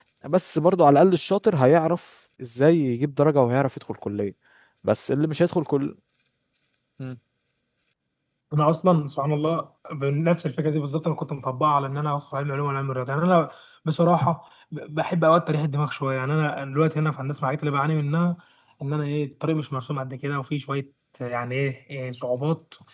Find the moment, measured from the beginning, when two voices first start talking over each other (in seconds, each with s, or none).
none